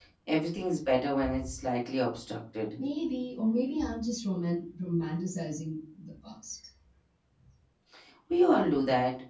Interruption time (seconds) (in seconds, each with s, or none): none